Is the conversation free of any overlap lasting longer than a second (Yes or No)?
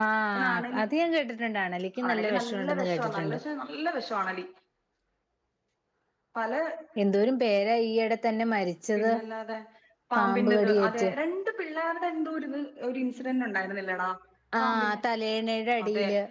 No